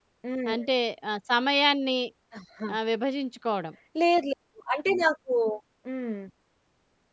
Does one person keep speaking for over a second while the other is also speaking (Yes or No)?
No